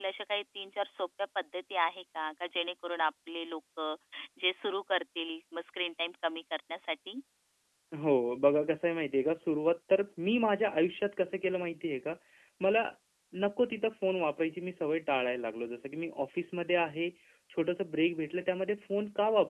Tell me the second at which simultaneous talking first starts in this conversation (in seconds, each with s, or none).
none